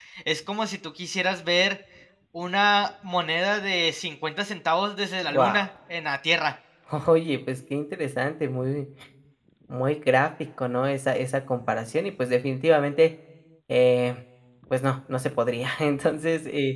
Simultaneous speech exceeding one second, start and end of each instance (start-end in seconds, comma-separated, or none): none